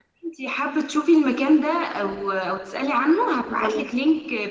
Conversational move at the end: listening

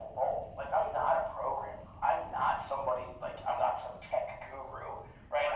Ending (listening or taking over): taking over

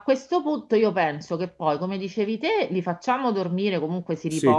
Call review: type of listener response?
listening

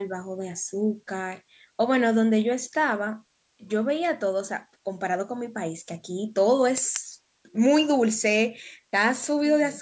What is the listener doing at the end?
listening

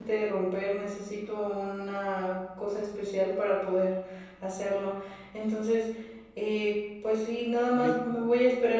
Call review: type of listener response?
listening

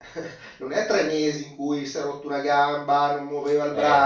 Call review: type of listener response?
listening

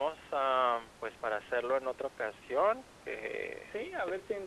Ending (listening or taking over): taking over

